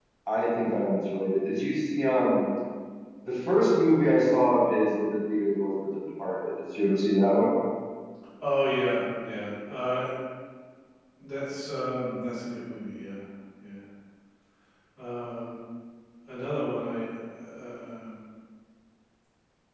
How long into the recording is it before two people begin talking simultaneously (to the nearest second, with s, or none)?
none